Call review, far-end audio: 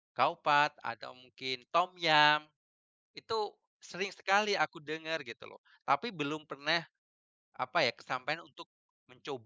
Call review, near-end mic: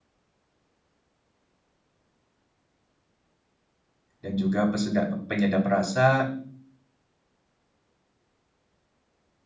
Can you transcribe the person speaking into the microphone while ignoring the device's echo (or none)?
dan juga peseda penyedap rasa.